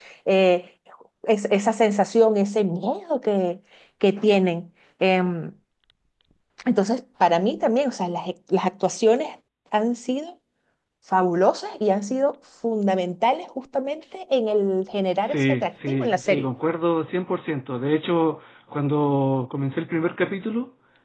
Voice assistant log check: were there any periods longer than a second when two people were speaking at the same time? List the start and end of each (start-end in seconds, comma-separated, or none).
15.2-16.5